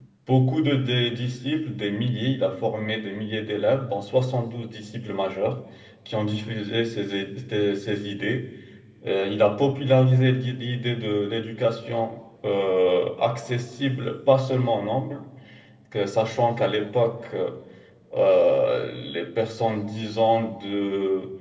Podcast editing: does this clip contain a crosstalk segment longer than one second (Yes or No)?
No